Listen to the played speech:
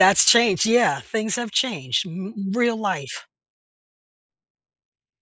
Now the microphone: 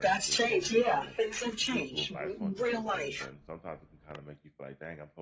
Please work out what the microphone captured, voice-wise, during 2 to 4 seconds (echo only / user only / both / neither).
both